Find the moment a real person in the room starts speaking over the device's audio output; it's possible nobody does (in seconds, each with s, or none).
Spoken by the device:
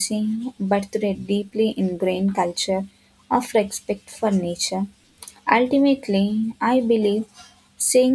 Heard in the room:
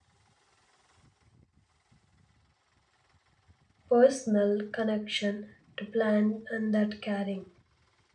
3.9 s